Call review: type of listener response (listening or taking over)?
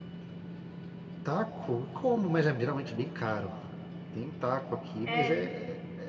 listening